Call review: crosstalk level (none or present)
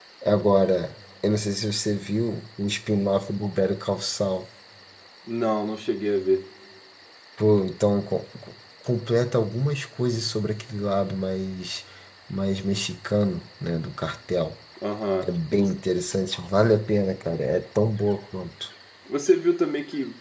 none